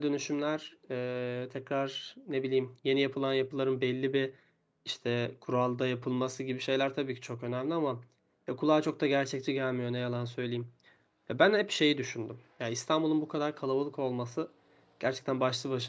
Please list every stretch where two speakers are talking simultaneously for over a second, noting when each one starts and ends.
none

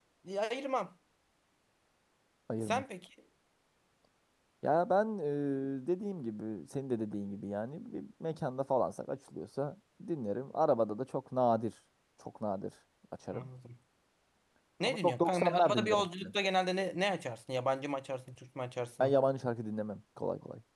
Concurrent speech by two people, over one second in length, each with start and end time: 14.8-16.3

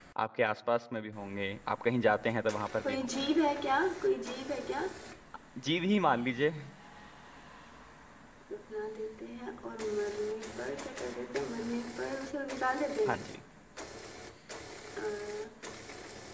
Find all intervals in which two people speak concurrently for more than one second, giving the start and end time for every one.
none

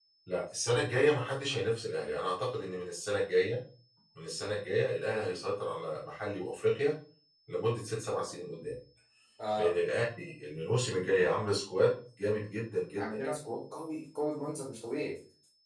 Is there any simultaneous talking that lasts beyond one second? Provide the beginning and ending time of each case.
none

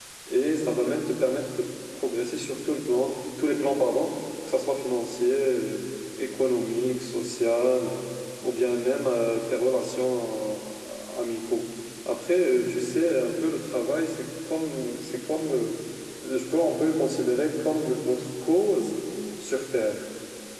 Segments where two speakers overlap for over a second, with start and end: none

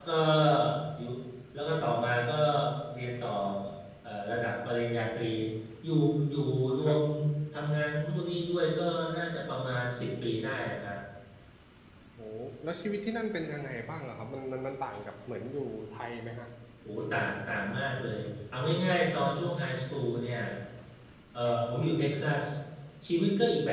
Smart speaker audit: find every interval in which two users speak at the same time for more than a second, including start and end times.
none

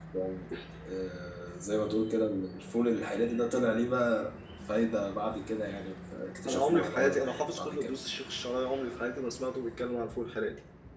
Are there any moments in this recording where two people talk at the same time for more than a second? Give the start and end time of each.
6.5-7.9

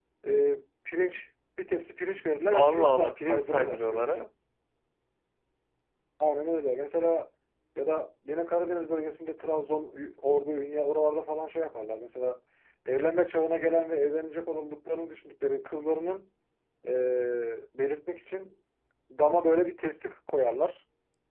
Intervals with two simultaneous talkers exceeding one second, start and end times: 2.5-4.2

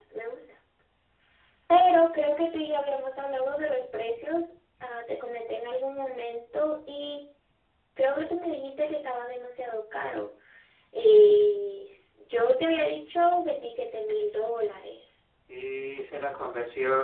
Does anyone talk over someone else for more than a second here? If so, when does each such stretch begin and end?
none

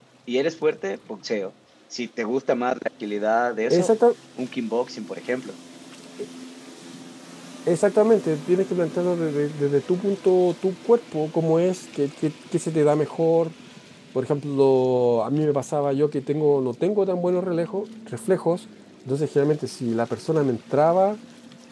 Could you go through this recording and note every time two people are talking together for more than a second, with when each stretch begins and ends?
none

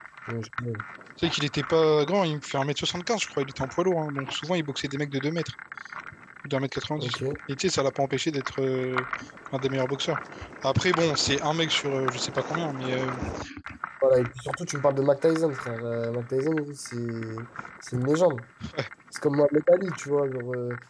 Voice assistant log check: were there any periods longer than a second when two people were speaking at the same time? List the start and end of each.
none

